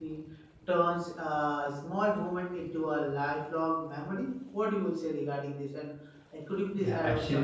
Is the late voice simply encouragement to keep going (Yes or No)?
No